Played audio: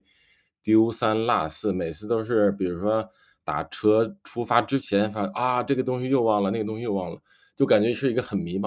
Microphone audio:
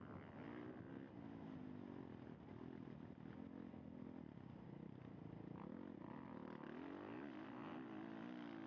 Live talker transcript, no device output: none

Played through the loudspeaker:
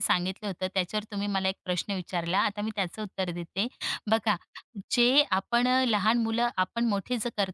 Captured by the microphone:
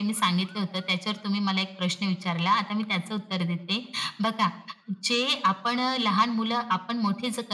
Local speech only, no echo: none

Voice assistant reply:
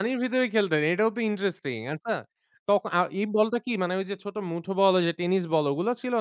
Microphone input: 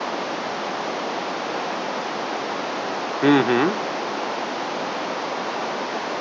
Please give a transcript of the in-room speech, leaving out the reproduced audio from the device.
হুম, হুম।

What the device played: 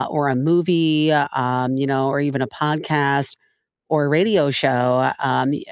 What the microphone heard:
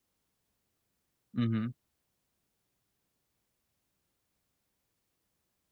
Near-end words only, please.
hmm

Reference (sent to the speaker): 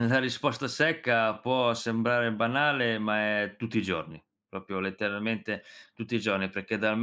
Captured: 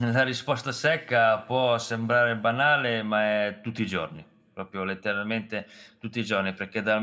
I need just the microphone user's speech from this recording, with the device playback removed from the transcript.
none

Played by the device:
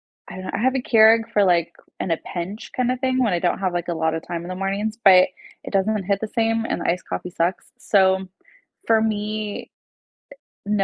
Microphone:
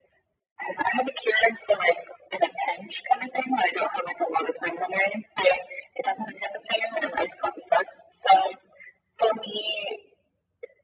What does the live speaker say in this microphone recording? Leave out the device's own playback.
none

